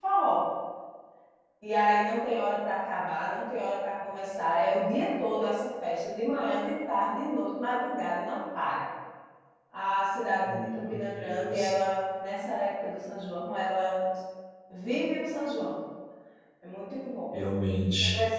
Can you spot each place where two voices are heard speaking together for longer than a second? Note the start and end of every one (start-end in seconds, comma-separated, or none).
10.4-11.7